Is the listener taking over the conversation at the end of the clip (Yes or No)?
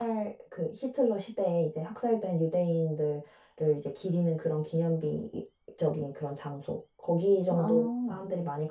No